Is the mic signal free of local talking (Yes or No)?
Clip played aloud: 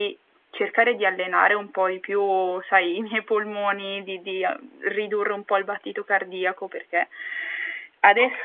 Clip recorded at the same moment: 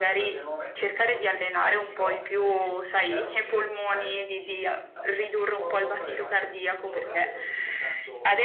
No